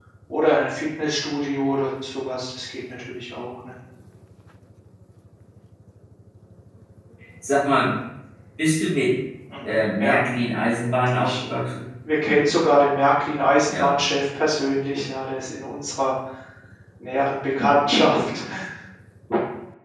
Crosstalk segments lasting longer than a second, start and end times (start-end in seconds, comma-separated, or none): none